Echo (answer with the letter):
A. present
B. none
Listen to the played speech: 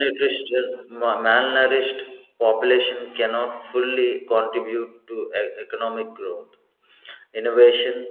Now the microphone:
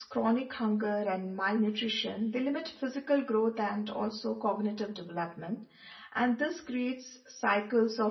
B